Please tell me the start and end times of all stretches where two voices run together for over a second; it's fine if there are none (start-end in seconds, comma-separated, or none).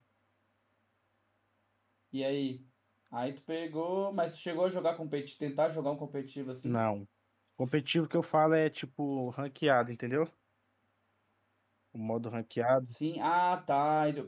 none